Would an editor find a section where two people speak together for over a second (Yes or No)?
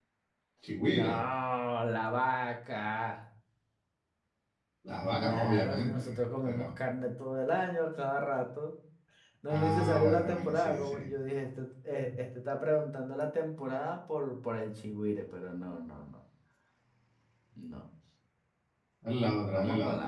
Yes